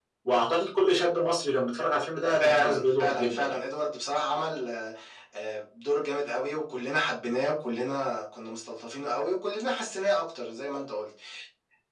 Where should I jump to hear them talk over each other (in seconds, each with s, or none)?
2.4 s